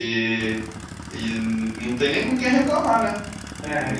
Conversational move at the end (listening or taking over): listening